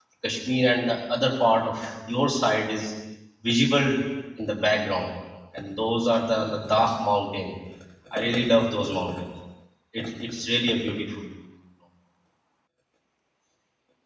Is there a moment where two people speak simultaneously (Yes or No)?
No